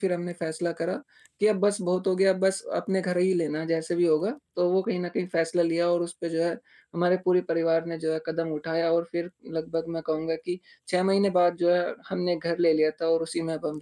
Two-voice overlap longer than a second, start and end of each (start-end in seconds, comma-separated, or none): none